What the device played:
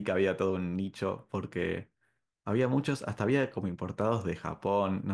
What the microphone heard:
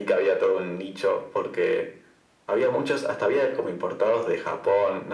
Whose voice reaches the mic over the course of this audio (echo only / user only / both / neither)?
echo only